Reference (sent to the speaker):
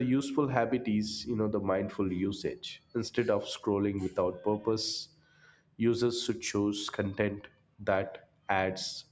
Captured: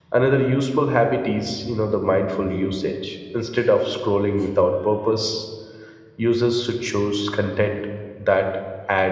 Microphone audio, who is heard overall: echo only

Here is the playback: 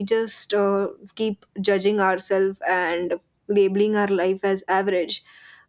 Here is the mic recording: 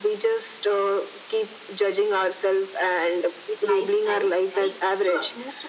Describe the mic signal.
both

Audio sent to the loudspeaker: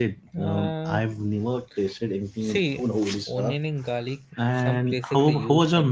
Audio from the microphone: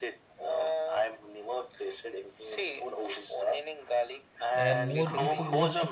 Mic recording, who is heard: both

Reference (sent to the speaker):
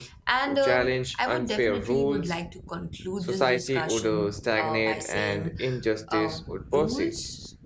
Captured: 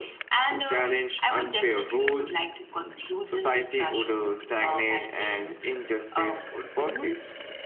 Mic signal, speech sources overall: echo only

